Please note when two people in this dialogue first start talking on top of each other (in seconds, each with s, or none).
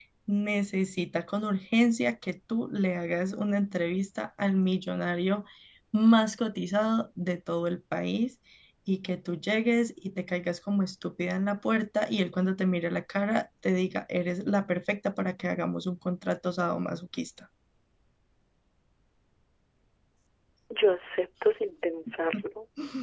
none